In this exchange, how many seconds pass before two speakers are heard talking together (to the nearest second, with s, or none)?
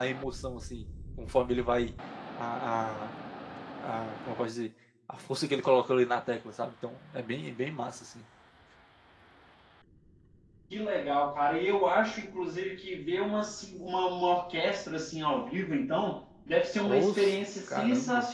17 s